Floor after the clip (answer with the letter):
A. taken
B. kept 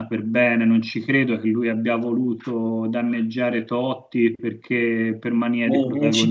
A